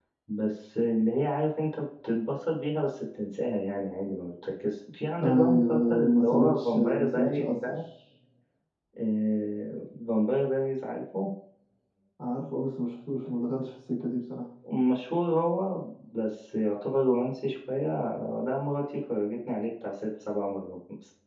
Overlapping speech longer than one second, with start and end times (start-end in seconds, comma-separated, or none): 5.2-7.8